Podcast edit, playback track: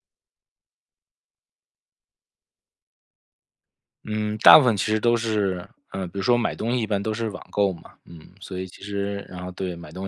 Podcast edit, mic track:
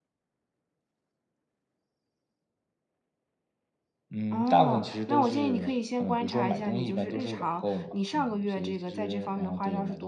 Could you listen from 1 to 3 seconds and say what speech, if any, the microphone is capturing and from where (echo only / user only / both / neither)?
neither